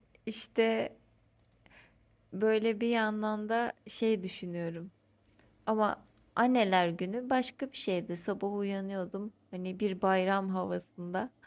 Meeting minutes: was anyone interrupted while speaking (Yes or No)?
No